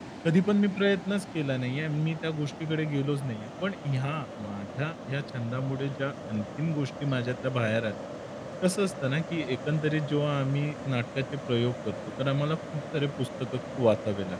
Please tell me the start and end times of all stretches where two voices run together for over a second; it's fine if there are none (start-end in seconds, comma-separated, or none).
none